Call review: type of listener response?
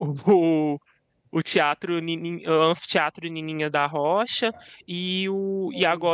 listening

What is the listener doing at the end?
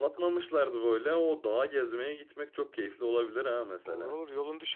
taking over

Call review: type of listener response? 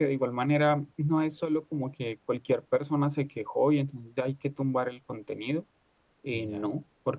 listening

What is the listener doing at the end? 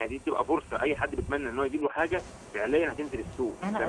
taking over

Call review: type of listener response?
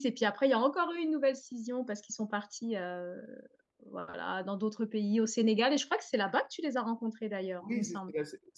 taking over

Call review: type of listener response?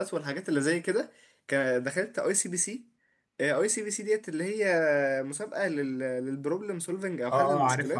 taking over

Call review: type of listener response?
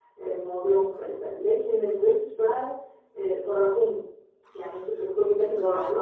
listening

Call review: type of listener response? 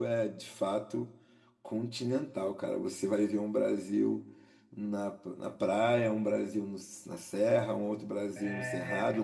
listening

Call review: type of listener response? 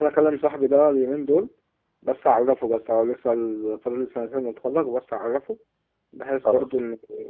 listening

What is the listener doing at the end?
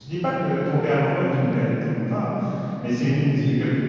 listening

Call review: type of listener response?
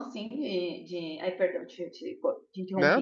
listening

